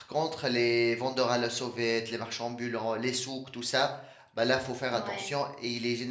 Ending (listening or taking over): listening